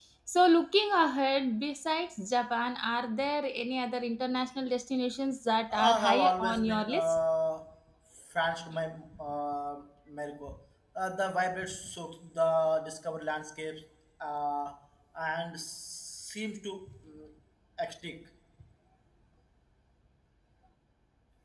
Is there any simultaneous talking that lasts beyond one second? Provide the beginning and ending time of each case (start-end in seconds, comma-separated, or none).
5.7-7.1